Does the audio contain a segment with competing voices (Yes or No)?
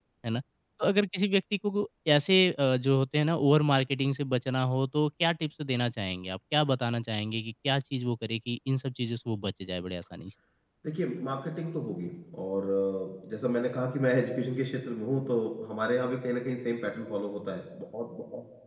No